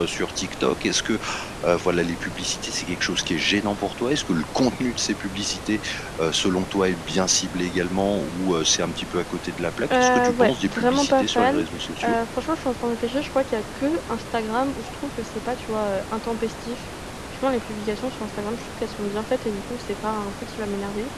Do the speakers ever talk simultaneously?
Yes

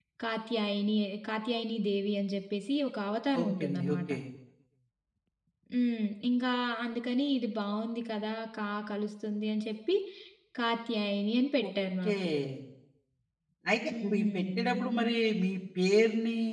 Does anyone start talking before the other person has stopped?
Yes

